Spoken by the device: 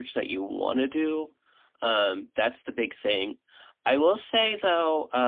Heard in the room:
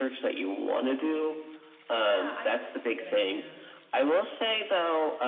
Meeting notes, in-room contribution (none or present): present